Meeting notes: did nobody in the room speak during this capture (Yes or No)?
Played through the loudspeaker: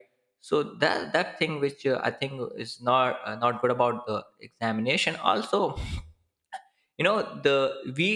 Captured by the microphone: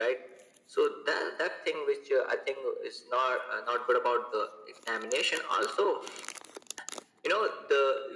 Yes